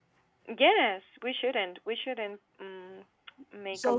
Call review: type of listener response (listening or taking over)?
taking over